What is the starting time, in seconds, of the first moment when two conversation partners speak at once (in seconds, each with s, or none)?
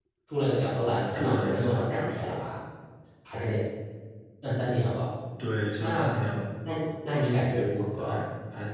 0.8 s